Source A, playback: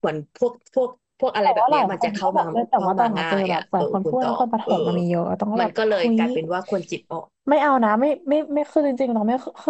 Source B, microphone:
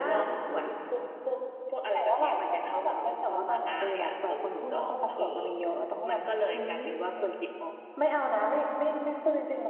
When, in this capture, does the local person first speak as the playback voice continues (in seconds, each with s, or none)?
none